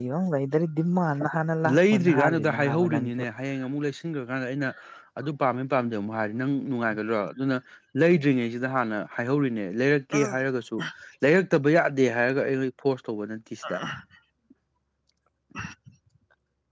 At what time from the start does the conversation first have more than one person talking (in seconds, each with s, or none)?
1.9 s